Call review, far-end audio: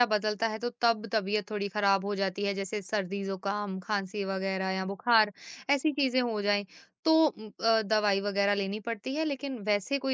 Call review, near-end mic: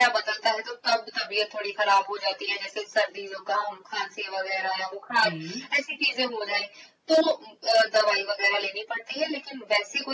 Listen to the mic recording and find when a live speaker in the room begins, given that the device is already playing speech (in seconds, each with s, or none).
5.2 s